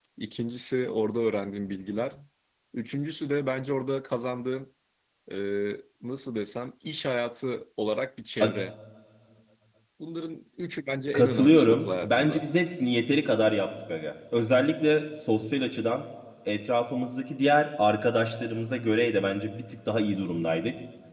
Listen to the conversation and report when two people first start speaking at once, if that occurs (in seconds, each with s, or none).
11.1 s